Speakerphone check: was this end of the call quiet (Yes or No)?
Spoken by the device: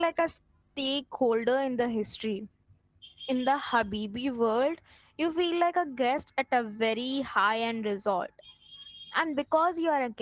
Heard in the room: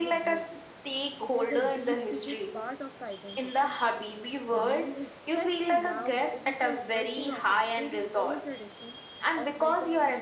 No